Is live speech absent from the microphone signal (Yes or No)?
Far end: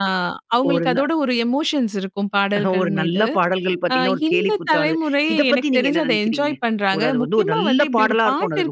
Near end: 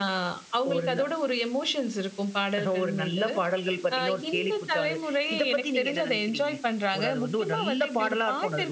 Yes